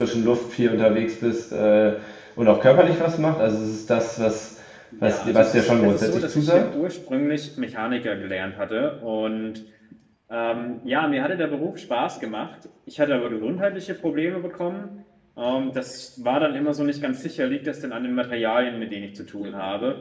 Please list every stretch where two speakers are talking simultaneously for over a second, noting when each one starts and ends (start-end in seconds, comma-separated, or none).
5.0-6.6